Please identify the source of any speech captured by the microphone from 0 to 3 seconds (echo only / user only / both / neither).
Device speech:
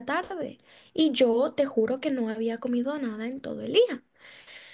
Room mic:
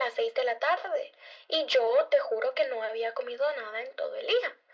echo only